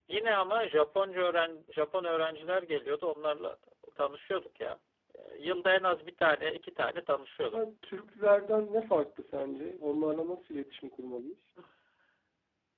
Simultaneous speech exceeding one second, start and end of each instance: none

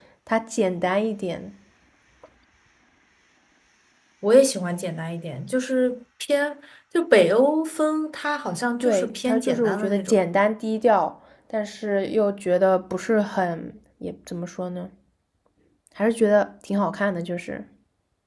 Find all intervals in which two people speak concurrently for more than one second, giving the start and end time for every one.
8.8-10.2

